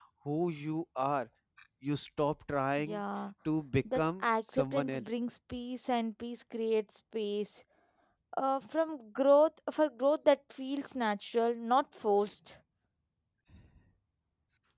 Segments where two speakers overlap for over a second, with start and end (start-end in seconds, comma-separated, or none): 3.9-5.2